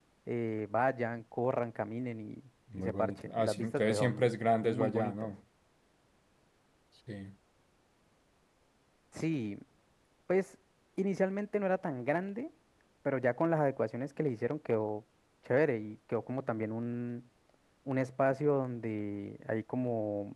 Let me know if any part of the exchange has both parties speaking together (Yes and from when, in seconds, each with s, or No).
Yes, from 2.7 s